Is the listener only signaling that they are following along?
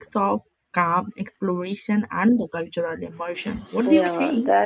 No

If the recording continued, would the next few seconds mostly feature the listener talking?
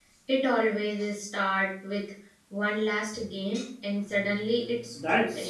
Yes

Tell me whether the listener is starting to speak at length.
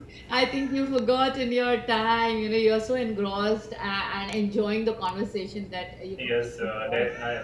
Yes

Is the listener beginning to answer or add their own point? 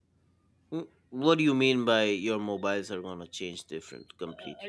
Yes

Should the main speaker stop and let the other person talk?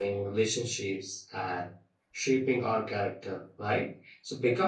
No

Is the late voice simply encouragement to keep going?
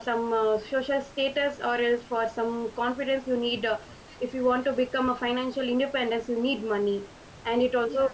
Yes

